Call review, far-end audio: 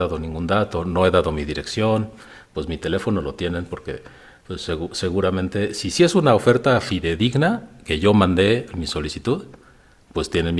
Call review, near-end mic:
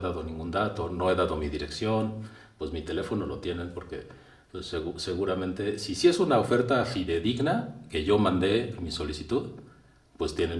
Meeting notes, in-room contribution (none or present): none